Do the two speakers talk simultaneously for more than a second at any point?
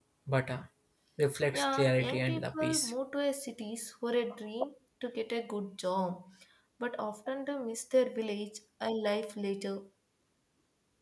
Yes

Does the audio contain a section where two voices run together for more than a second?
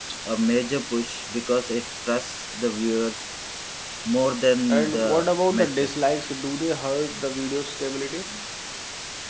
Yes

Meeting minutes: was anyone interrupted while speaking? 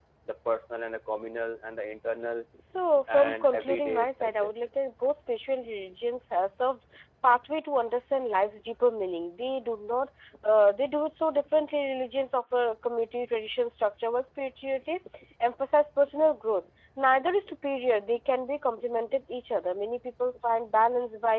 Yes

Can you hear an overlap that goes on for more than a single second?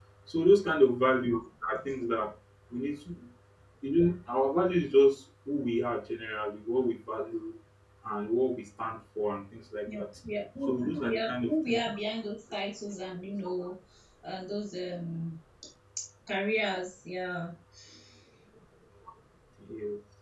Yes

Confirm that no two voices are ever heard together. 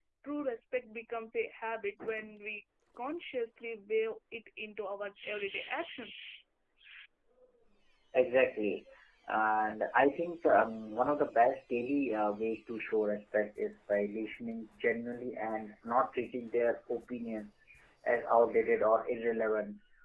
Yes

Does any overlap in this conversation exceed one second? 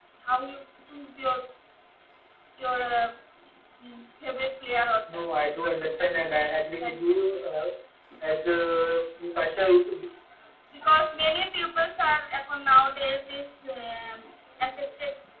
No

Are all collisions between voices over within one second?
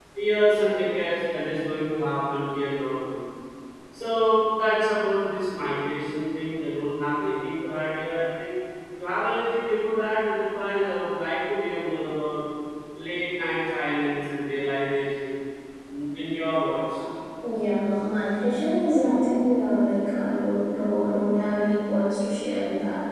Yes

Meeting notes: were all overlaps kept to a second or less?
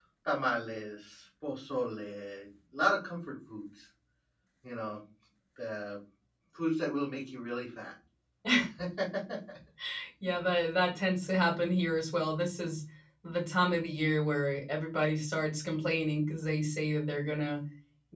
Yes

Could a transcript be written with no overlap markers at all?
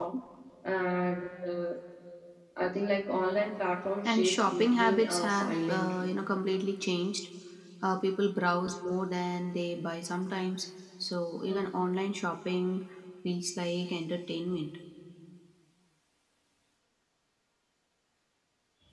No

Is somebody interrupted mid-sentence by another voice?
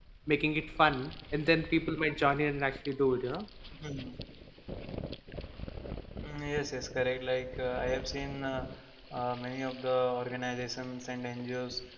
No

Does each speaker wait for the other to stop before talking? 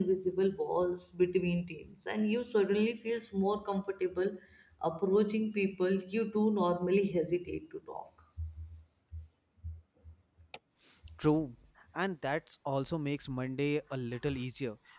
Yes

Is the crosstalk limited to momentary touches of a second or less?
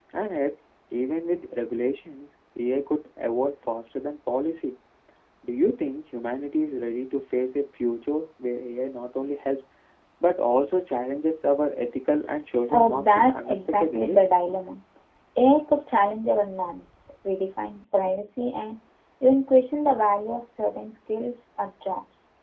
No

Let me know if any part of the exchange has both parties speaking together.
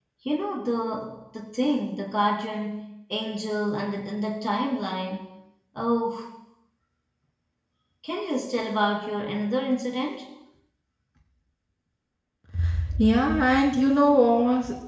No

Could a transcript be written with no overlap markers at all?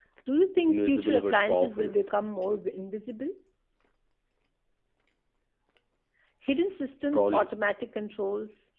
No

